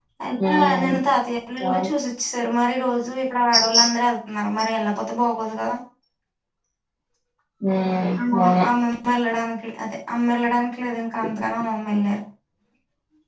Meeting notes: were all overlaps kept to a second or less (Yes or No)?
Yes